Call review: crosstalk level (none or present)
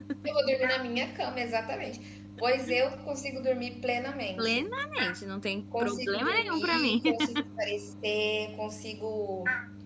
present